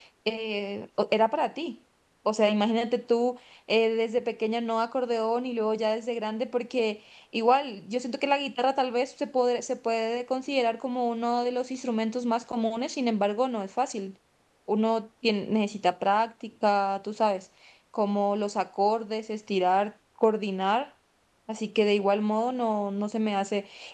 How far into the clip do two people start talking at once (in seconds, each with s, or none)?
none